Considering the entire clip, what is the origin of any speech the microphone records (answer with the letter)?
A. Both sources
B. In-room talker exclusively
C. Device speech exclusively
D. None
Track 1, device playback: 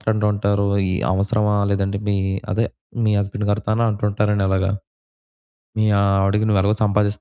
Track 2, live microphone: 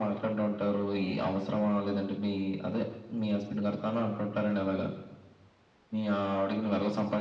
C